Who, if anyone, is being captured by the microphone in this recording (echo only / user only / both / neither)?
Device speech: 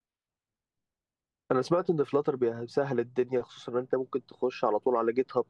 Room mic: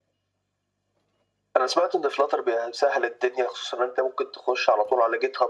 echo only